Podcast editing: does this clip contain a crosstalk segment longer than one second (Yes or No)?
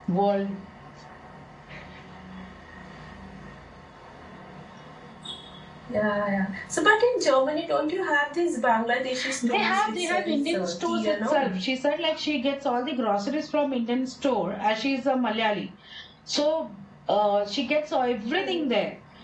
Yes